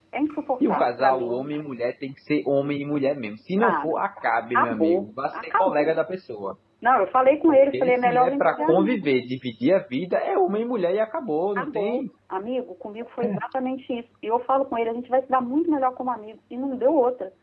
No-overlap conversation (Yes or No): No